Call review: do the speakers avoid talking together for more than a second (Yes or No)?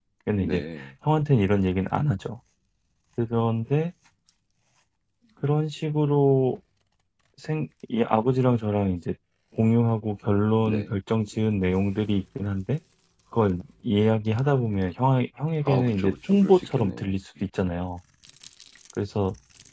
No